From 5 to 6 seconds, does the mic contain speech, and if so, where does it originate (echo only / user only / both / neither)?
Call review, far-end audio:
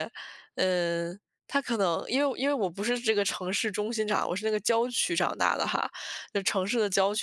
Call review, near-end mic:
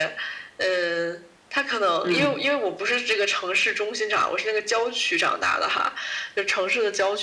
echo only